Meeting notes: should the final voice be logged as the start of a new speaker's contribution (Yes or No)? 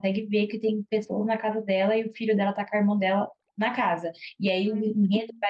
No